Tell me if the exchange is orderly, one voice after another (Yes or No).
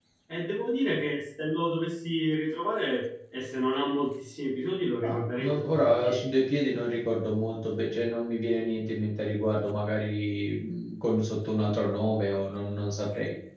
No